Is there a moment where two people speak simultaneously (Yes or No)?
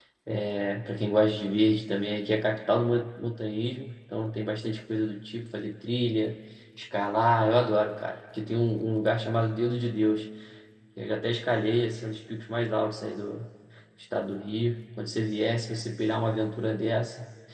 No